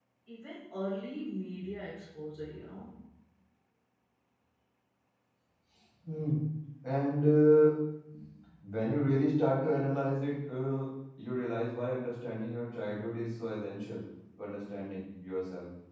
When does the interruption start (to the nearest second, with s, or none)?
none